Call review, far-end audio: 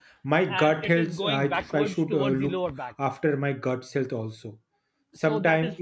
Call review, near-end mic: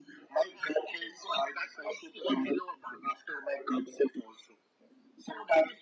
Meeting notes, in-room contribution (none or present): none